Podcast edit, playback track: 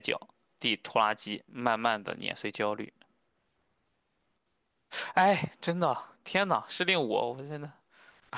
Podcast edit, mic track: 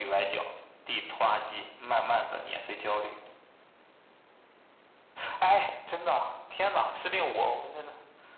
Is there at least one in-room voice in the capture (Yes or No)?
No